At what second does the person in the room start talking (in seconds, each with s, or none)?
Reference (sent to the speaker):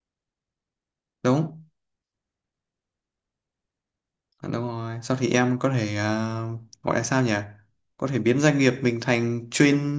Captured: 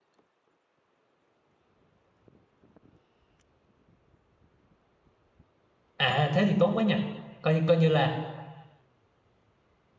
5.9 s